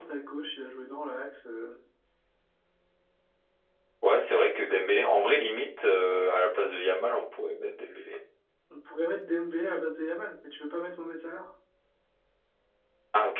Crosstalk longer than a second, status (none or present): none